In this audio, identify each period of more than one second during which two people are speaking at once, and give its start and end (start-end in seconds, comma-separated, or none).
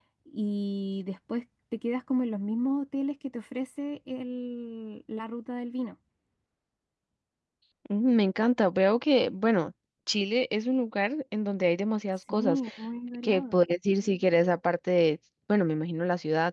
none